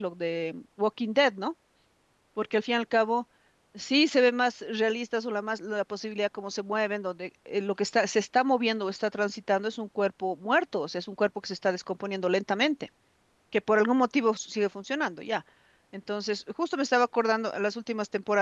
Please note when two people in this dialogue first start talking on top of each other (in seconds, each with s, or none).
none